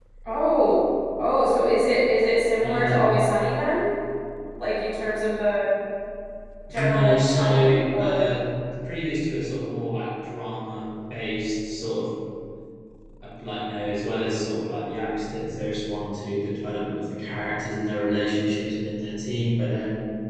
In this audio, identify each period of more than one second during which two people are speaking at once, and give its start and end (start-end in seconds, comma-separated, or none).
6.7-8.3